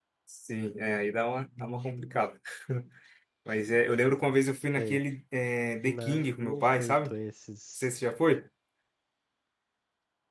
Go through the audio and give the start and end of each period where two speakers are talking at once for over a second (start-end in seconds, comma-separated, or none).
5.8-7.1